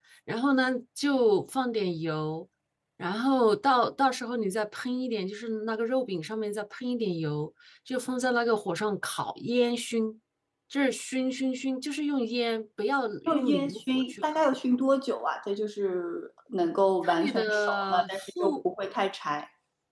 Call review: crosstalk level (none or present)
present